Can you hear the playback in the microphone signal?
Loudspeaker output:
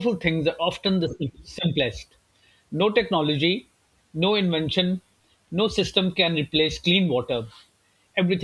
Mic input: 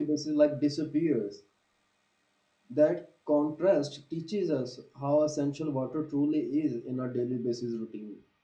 No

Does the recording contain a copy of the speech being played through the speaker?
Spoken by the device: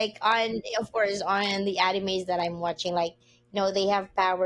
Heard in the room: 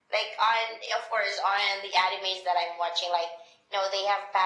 Yes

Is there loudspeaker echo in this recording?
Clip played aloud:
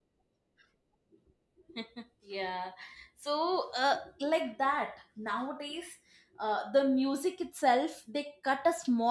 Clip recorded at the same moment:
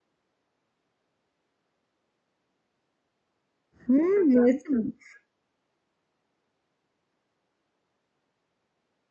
No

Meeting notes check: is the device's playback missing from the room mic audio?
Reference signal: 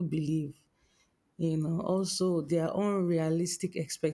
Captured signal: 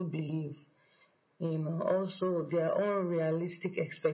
No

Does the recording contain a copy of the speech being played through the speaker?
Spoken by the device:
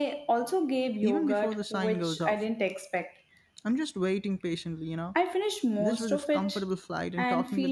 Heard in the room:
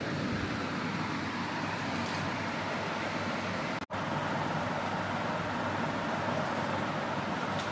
No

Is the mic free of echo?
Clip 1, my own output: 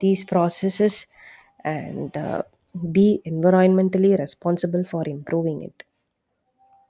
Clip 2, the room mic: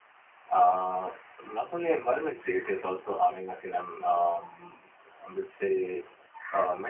Yes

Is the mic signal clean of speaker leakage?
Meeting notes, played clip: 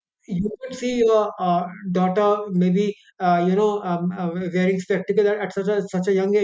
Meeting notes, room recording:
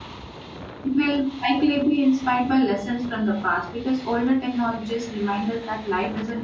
Yes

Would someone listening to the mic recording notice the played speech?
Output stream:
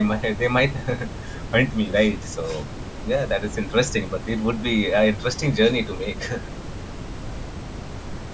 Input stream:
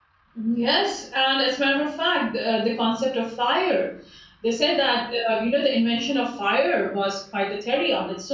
No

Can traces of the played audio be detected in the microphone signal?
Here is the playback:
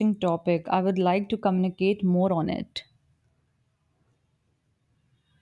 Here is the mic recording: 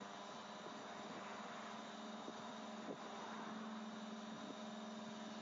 No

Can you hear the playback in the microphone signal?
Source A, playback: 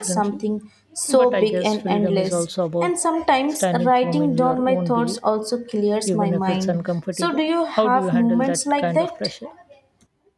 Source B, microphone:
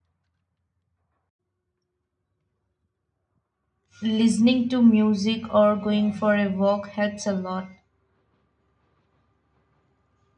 No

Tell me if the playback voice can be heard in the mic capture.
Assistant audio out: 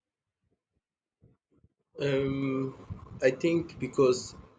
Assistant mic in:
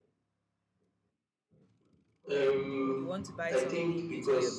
Yes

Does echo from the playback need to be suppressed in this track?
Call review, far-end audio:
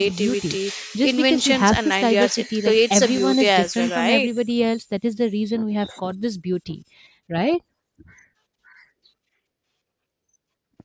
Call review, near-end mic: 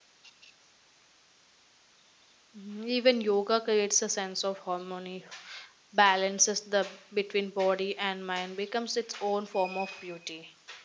No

